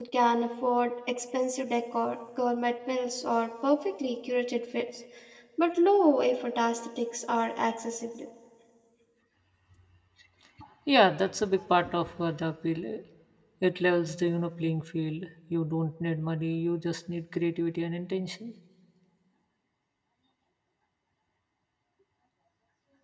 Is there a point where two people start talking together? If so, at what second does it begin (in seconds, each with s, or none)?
none